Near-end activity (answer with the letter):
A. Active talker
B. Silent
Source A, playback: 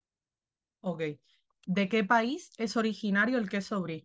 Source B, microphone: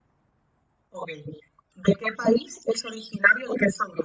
B